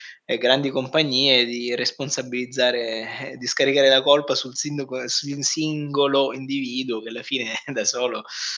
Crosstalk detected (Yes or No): No